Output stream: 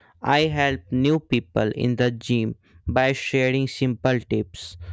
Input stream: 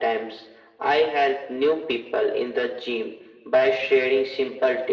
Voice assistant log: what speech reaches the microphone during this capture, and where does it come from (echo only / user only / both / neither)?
echo only